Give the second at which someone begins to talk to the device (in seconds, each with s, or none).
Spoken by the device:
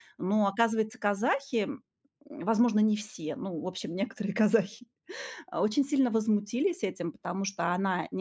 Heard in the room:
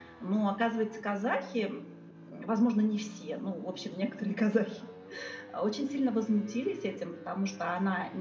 none